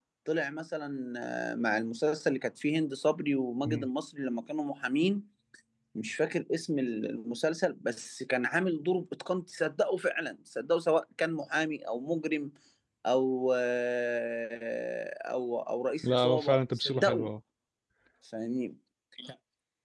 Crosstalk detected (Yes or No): Yes